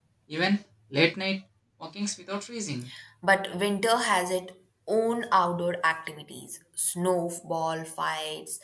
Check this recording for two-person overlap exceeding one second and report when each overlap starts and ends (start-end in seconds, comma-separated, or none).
none